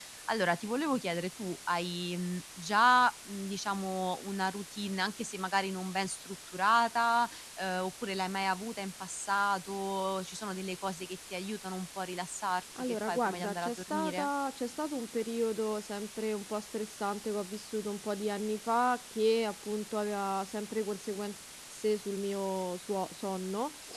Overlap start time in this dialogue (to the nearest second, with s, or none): 13 s